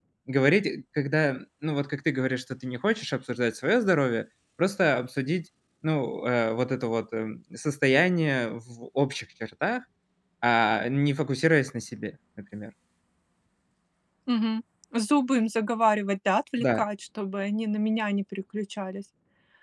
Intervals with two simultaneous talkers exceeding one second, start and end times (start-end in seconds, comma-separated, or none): none